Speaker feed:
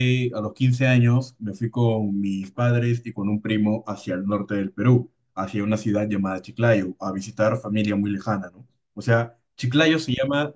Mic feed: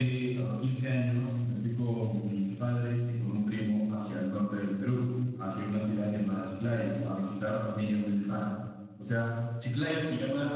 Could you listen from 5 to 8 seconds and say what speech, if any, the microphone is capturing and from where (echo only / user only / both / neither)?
echo only